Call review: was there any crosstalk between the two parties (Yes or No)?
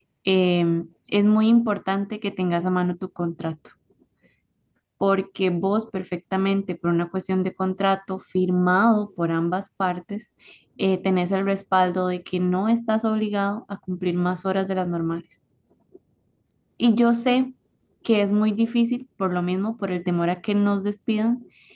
No